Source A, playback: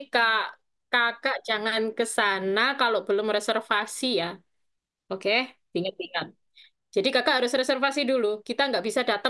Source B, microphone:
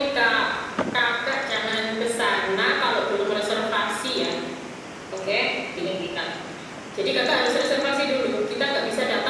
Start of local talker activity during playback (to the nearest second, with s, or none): none